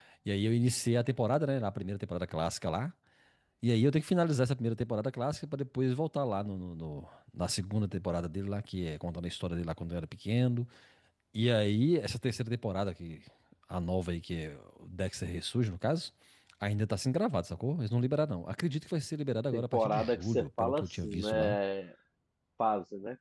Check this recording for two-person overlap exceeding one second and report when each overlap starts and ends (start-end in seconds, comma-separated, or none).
19.5-21.6